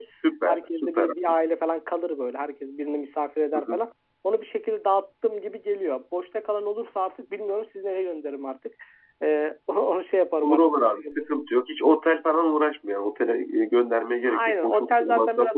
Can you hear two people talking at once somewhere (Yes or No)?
Yes